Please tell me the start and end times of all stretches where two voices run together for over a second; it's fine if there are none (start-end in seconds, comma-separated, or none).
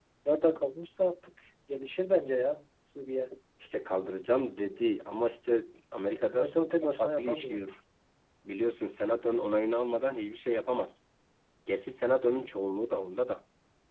6.3-7.7